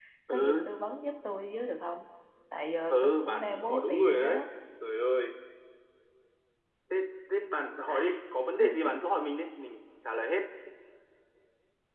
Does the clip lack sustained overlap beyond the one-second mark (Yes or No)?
No